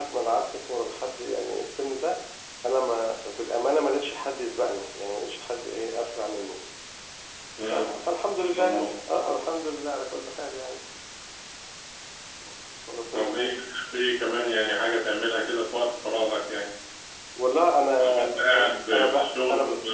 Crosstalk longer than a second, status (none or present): present